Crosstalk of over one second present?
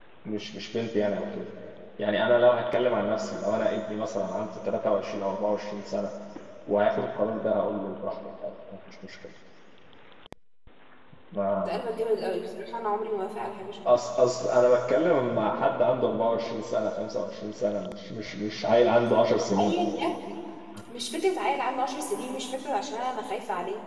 No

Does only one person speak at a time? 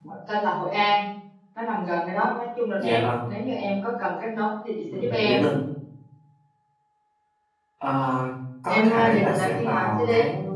No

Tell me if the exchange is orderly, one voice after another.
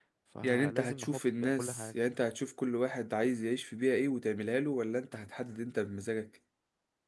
No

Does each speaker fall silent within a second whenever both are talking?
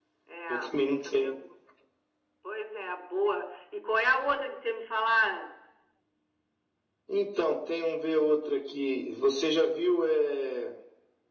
Yes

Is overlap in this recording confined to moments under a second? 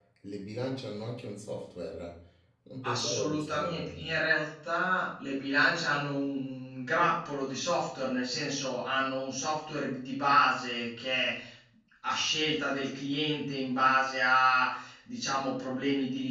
No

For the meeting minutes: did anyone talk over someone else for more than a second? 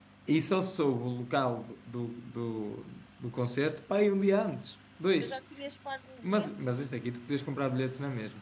No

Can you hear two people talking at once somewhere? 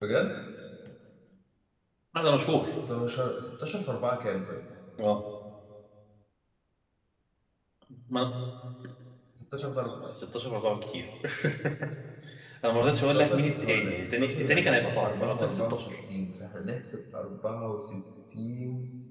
Yes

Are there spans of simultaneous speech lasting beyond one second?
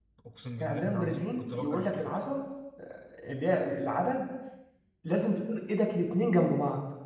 Yes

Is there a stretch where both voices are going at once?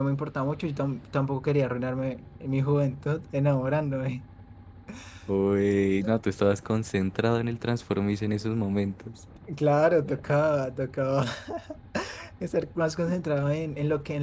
No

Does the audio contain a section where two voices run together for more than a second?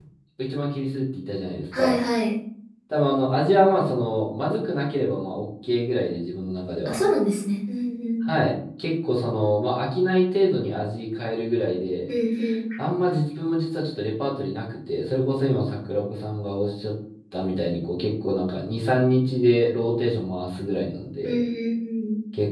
No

